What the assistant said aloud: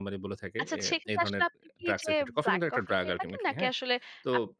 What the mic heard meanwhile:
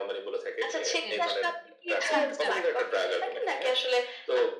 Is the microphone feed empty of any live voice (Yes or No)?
No